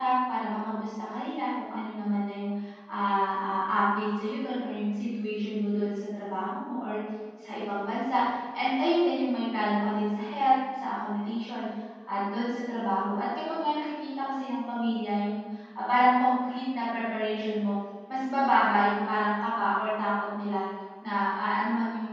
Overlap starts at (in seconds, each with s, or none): none